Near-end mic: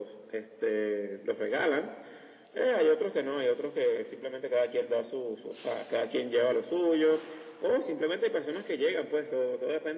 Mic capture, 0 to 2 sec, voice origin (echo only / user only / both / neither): echo only